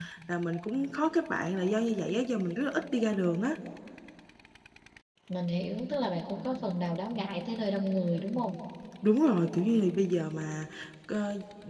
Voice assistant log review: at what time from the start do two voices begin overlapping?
none

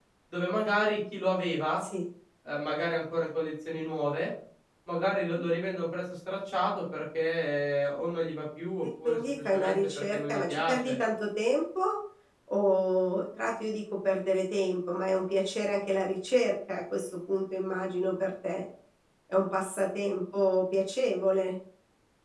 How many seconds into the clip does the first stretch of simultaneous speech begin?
9.0 s

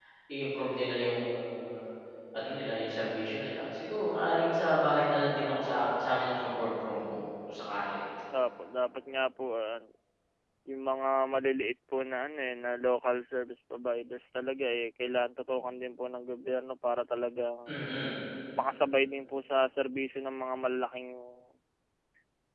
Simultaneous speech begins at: none

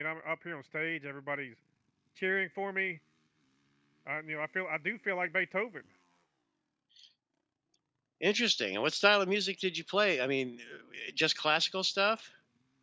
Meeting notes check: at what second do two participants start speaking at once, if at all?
none

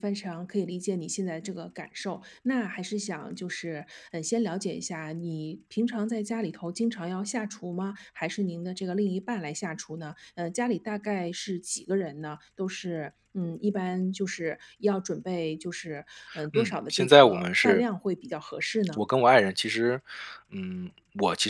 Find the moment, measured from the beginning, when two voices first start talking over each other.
16.3 s

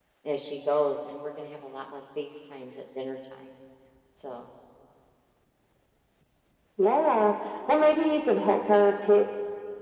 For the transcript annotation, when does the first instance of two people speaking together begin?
none

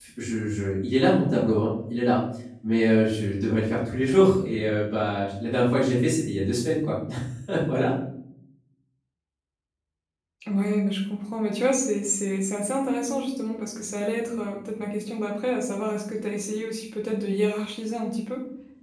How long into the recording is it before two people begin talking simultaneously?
none

